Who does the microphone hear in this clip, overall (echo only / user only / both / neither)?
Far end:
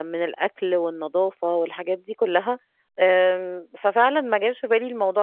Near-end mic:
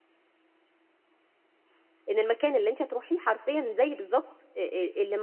user only